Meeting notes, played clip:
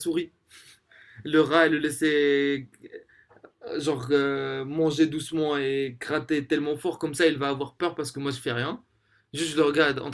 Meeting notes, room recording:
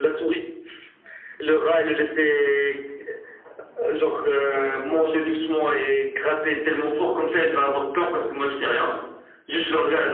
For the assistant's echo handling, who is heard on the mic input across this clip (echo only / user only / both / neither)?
echo only